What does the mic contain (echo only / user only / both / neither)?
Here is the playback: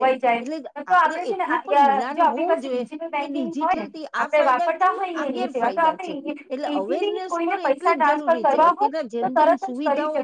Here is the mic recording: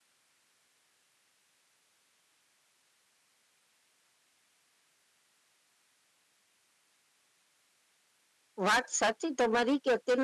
user only